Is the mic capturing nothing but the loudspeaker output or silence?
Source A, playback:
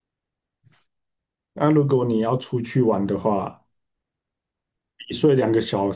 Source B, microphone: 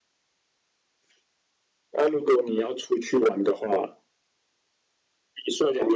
Yes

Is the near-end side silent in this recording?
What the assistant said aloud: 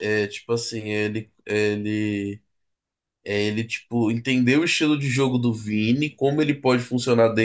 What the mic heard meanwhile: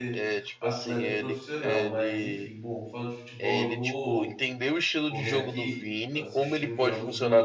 No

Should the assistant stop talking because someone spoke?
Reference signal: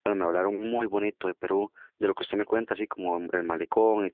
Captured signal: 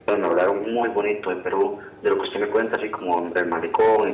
No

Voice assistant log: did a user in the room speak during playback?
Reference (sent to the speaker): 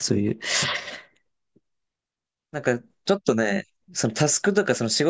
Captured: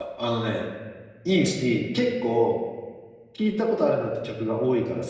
Yes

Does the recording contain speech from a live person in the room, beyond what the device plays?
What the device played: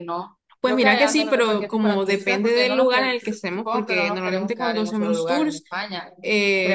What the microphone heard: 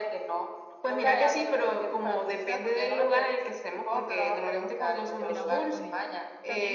Yes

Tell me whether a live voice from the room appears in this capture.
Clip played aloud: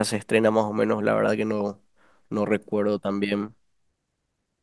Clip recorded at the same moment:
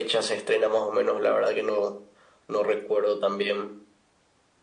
No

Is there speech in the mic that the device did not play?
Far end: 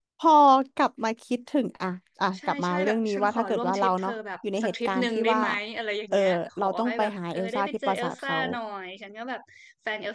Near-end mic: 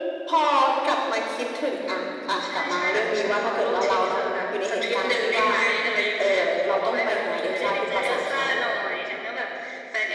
No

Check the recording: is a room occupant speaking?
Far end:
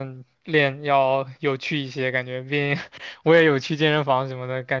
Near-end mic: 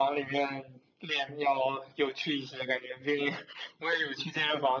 No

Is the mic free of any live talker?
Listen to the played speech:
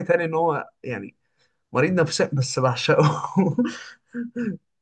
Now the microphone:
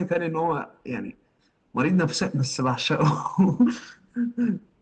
Yes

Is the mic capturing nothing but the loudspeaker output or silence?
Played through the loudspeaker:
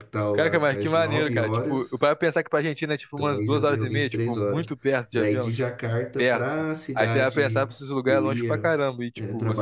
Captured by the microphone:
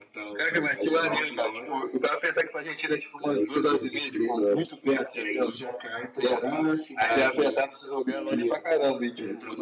Yes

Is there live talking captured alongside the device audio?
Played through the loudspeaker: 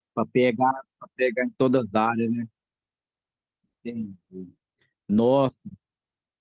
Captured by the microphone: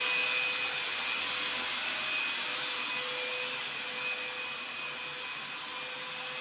No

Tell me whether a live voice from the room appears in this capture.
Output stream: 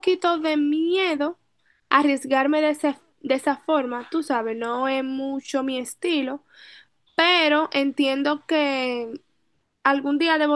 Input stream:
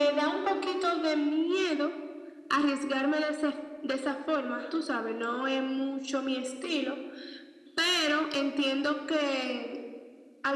No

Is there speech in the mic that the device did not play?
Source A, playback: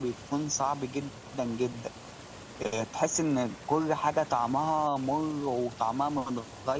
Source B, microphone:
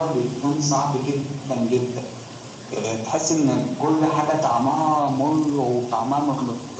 No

